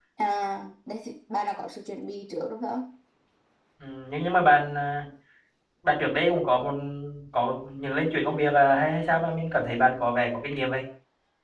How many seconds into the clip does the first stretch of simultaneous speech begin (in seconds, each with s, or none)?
none